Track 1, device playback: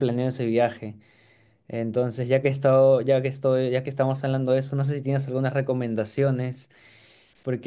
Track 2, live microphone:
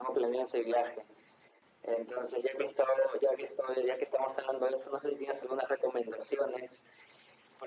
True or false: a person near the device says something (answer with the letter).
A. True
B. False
B